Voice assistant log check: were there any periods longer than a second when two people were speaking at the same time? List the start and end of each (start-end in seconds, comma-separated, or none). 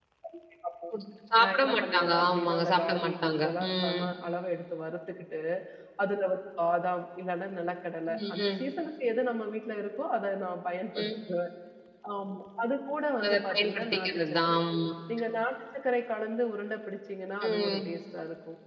1.4-4.0, 13.2-14.6